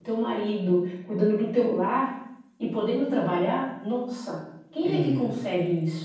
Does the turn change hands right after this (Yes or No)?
No